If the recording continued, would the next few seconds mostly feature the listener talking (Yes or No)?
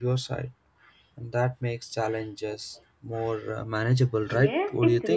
Yes